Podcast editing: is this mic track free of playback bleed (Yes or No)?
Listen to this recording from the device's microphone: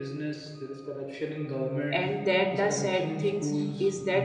No